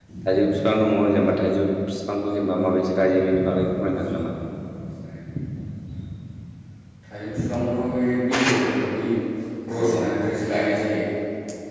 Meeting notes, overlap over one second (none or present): none